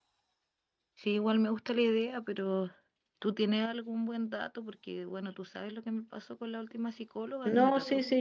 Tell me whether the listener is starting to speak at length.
Yes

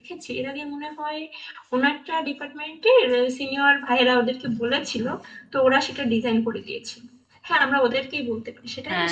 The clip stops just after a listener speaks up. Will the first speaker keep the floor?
No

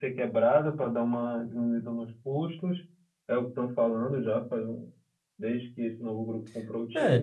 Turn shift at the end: Yes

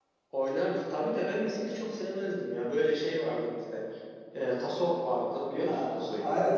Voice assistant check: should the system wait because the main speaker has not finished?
No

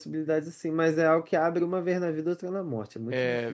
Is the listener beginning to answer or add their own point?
Yes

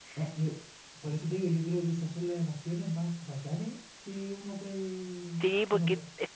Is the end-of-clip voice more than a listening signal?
Yes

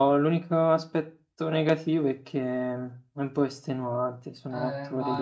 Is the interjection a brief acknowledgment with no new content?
No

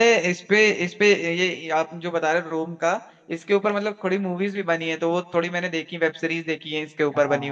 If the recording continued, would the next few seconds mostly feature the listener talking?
Yes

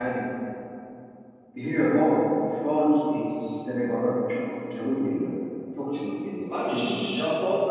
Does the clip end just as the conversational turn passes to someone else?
Yes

